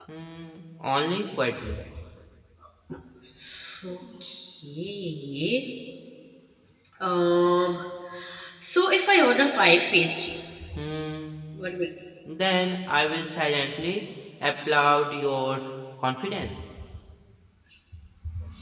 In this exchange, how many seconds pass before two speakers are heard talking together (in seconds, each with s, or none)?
none